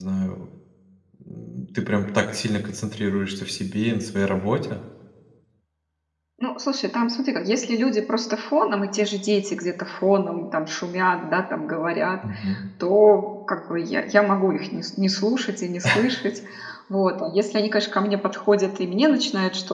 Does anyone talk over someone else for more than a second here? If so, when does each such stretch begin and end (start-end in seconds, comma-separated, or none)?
none